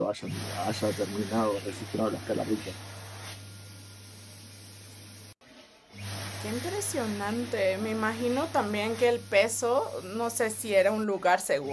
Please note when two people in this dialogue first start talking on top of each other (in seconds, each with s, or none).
none